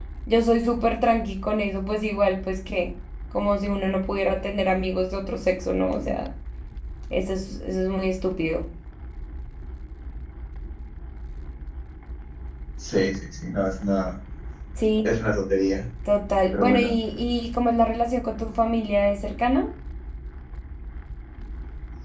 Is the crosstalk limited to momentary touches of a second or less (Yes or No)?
Yes